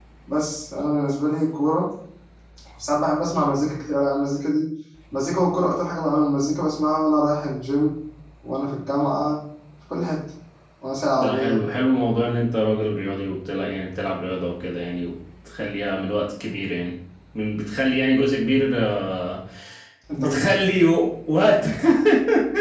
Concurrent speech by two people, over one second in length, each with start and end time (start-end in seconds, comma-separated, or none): none